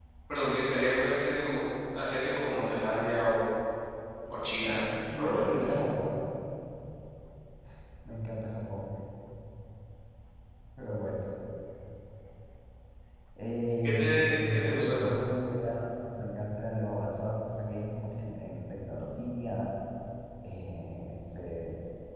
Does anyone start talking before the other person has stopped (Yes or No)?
Yes